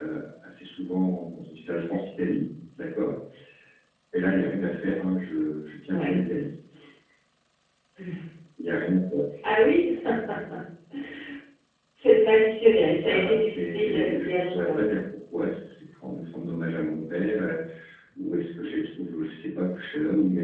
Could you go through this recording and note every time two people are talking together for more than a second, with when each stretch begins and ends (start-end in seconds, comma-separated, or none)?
13.0-14.8